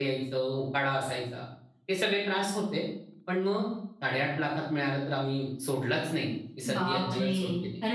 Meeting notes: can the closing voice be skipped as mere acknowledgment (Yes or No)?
No